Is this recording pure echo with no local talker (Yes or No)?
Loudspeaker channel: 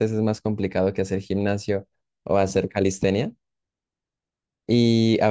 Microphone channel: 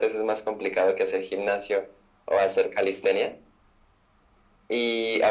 Yes